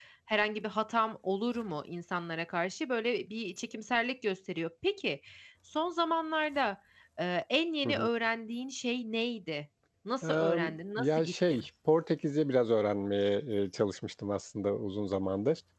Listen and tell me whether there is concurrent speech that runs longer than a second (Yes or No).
Yes